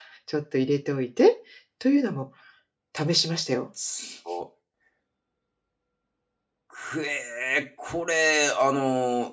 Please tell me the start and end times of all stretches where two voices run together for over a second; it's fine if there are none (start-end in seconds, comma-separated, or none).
none